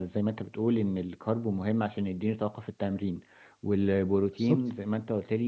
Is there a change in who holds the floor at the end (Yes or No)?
No